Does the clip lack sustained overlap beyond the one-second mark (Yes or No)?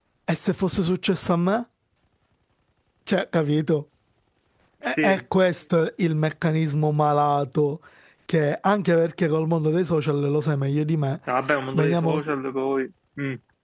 Yes